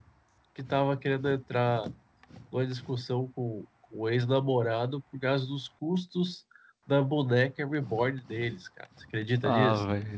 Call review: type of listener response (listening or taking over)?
taking over